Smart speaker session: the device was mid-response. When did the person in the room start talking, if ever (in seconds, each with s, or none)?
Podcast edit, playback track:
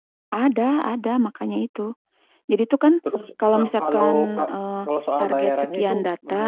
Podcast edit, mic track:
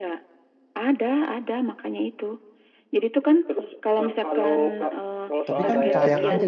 5.5 s